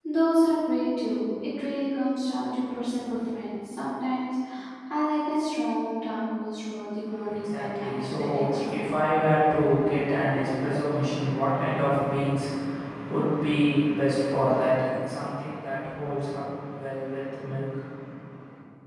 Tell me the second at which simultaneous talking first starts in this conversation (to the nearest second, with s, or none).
7 s